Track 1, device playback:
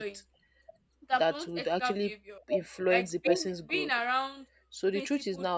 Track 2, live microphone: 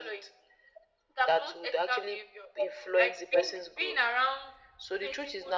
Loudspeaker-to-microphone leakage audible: Yes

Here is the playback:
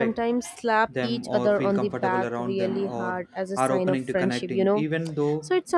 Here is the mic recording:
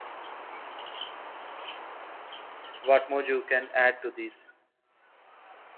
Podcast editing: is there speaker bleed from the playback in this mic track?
No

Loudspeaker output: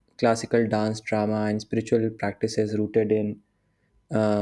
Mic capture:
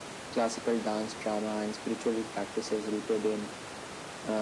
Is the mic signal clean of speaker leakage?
No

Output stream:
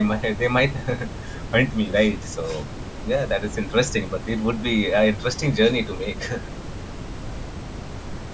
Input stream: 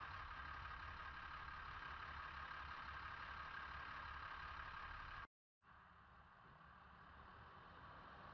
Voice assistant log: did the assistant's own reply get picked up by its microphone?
No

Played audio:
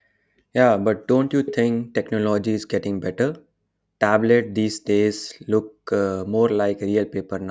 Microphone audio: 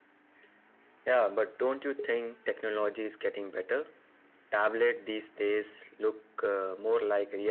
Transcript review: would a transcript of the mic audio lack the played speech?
No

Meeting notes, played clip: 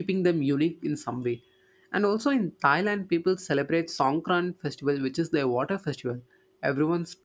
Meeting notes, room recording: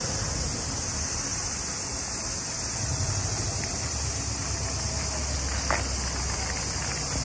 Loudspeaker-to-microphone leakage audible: No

